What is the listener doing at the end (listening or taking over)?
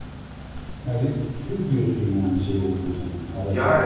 taking over